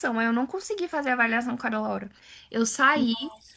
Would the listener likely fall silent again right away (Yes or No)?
Yes